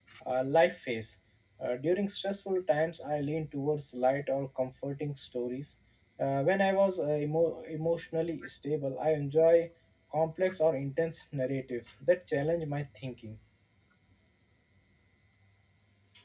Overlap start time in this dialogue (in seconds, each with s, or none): none